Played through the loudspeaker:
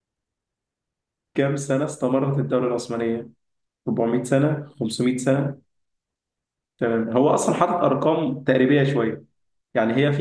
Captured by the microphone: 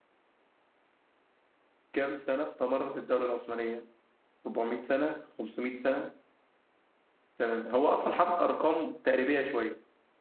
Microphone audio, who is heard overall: echo only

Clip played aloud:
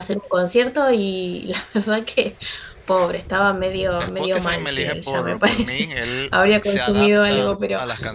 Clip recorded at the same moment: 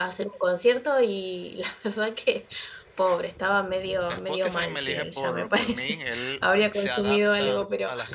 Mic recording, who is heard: echo only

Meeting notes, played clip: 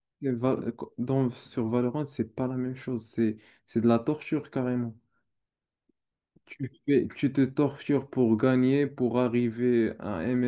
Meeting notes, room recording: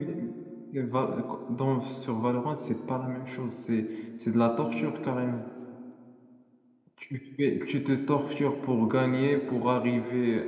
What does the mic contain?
echo only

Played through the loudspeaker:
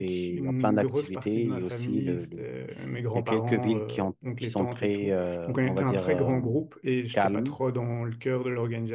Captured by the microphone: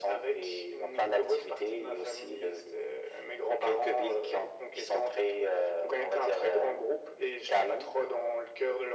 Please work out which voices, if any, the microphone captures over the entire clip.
echo only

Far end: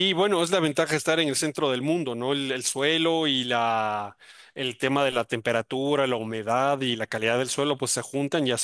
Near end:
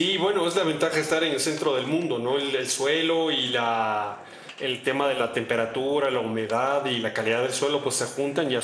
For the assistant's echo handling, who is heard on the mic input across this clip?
echo only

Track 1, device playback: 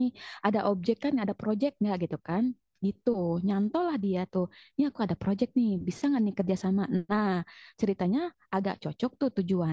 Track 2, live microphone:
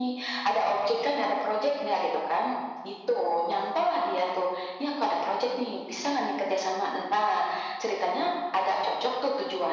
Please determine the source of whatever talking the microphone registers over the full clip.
echo only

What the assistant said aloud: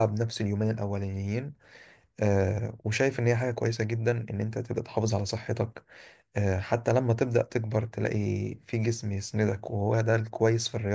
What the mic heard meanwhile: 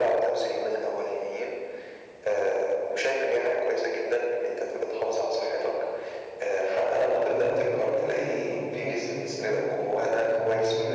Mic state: both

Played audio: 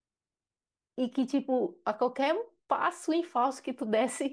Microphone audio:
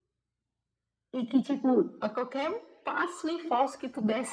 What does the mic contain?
echo only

